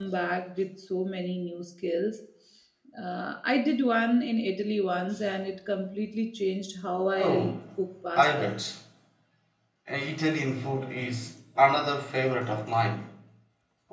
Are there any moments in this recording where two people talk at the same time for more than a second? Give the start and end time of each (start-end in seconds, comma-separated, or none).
none